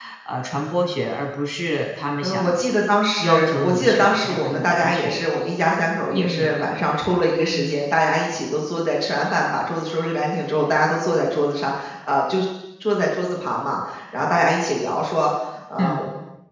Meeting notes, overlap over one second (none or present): present